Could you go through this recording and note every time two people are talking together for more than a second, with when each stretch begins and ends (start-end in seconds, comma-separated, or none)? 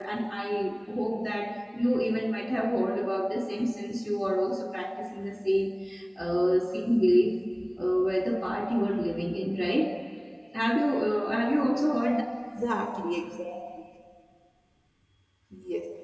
none